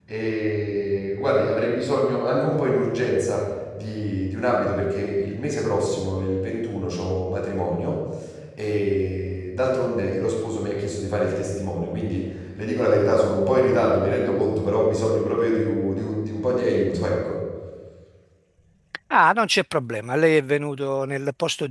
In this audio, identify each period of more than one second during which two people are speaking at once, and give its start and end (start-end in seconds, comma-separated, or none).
none